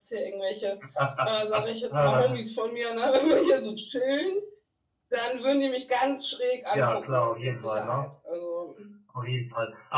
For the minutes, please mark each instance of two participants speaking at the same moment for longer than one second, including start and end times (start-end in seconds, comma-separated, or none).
6.7-8.1